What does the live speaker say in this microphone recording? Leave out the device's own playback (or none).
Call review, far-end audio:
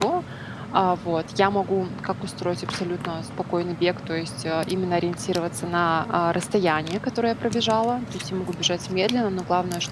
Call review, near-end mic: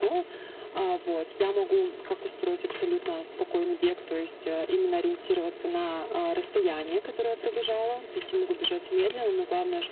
none